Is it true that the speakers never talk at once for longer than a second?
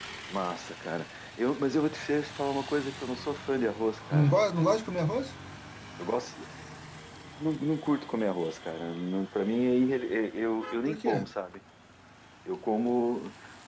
Yes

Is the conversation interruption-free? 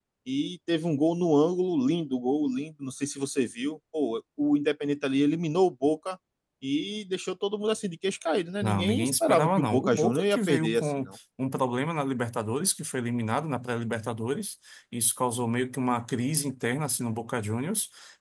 No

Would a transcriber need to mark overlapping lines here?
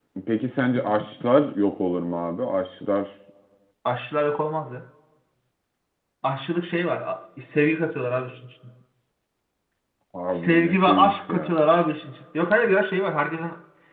Yes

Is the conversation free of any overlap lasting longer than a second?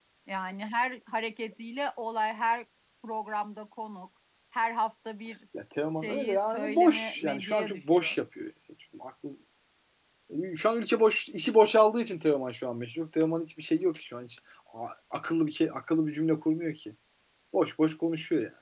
No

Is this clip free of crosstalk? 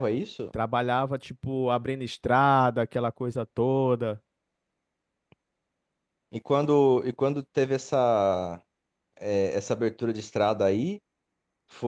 Yes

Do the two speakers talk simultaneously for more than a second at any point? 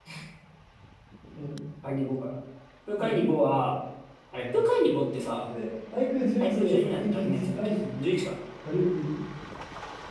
Yes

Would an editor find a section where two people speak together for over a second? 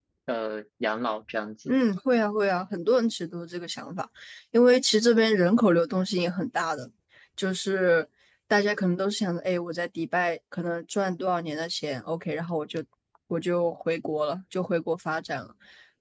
No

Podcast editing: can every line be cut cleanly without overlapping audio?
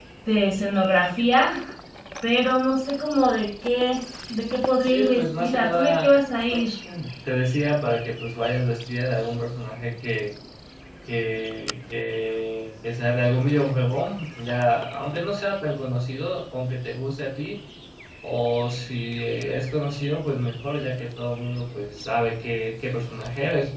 No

